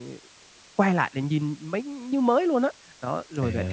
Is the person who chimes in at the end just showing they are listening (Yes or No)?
Yes